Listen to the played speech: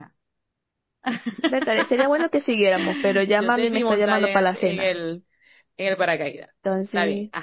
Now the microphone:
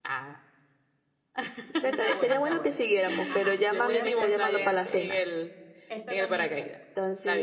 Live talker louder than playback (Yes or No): No